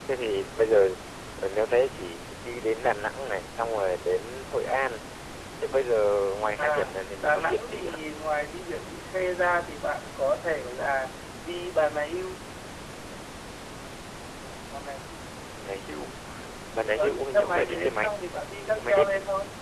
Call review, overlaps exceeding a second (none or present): present